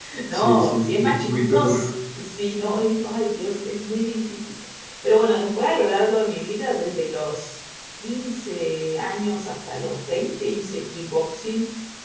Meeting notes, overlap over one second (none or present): present